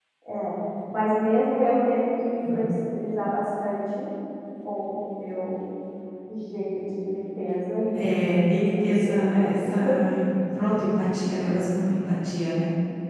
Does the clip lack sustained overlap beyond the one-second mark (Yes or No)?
No